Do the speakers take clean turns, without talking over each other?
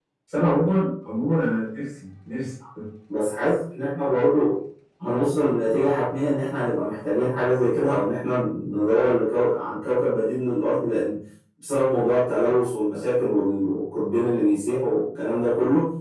Yes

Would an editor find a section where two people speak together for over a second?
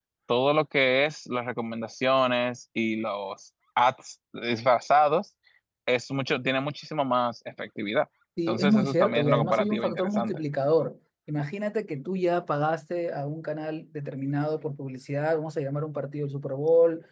Yes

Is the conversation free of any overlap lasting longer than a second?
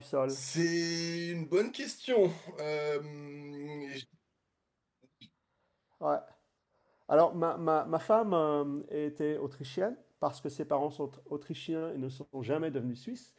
Yes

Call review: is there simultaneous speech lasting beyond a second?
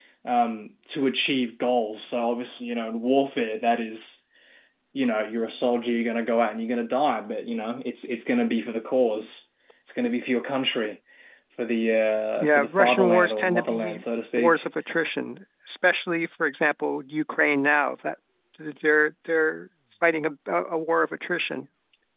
Yes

